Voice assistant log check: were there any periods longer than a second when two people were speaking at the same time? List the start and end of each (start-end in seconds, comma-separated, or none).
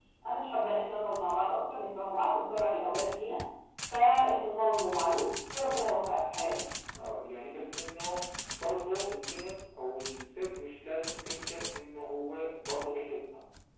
none